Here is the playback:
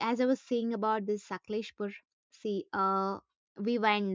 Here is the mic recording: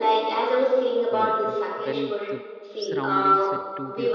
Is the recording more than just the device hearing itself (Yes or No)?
Yes